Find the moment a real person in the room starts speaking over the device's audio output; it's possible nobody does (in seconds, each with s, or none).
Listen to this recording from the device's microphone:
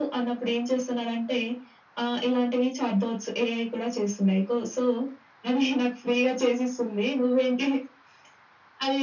none